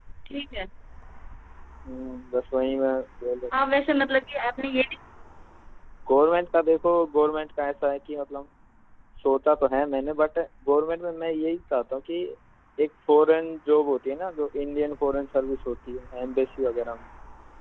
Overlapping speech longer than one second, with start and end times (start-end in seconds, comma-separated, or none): none